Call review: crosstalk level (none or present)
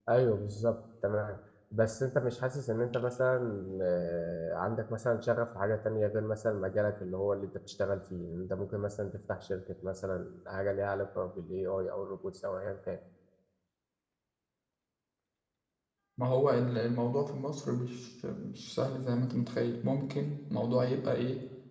none